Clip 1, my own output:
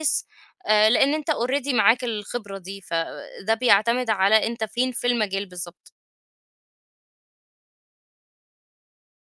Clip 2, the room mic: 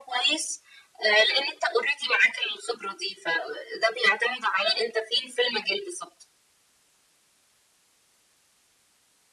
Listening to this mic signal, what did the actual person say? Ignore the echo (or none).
none